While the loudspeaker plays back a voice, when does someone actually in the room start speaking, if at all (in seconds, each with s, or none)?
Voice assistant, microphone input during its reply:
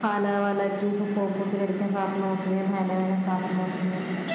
none